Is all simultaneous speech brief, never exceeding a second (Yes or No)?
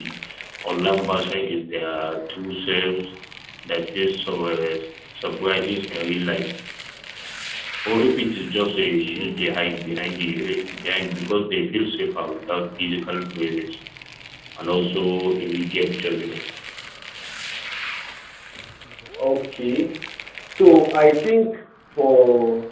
Yes